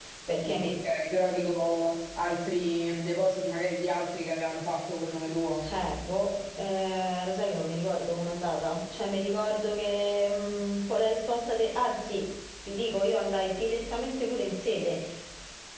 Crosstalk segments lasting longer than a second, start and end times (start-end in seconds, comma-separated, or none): none